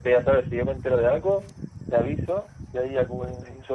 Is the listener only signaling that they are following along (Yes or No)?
Yes